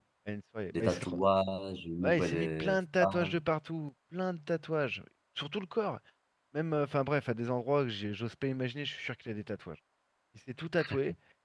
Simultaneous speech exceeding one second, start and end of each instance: 2.0-3.4

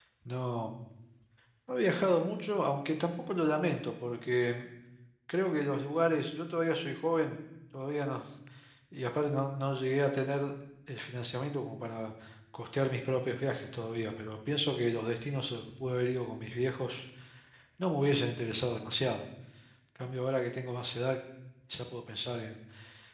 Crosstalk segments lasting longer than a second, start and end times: none

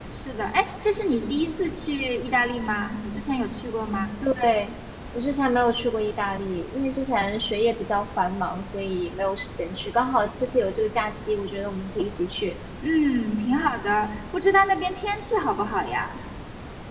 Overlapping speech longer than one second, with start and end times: none

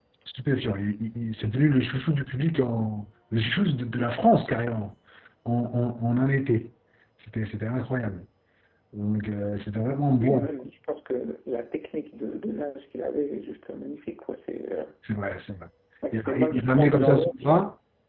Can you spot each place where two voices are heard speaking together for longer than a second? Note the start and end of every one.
16.1-17.3

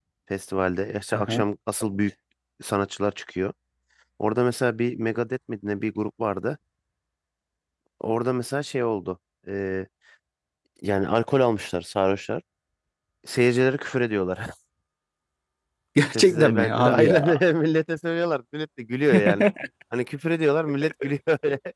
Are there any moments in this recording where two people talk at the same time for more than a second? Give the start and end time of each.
16.0-17.3

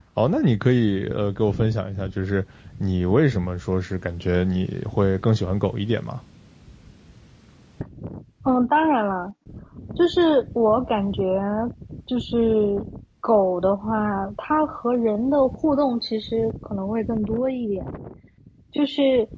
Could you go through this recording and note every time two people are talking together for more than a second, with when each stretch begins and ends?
none

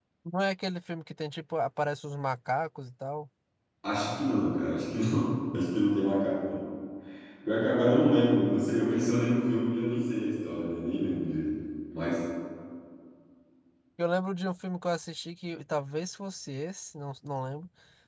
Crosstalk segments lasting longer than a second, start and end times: none

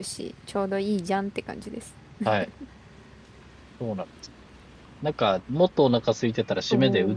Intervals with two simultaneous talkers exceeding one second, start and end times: none

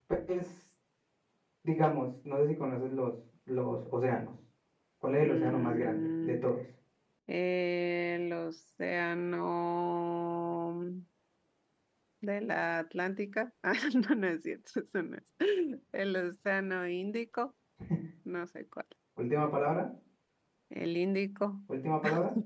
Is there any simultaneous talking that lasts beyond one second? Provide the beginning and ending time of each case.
5.1-6.4

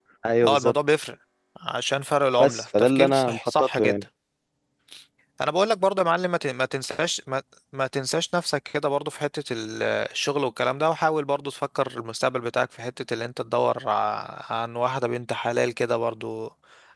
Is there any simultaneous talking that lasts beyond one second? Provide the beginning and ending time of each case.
2.4-3.9

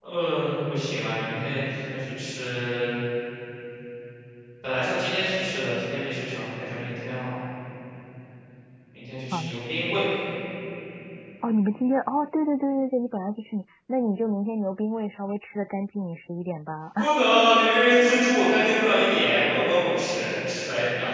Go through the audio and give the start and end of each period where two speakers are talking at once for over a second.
none

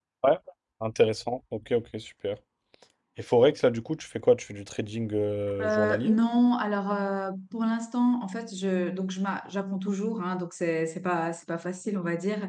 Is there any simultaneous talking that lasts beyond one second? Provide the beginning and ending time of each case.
none

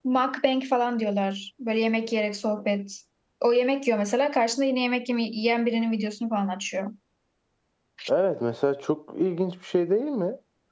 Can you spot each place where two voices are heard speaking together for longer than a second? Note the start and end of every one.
none

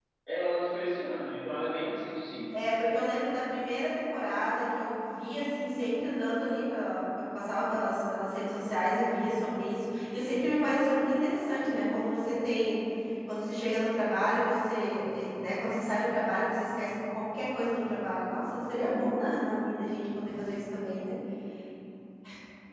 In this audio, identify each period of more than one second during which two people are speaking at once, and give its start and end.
none

